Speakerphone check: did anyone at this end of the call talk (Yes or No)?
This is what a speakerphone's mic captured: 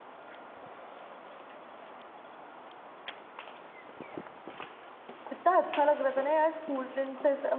Yes